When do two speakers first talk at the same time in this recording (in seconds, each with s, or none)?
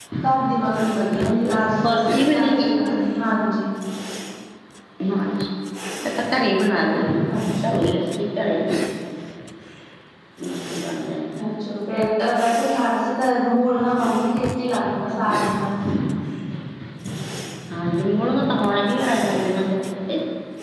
1.1 s